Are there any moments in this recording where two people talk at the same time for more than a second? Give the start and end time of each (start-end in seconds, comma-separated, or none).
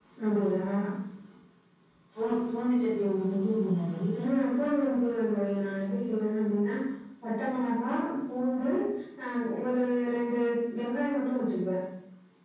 none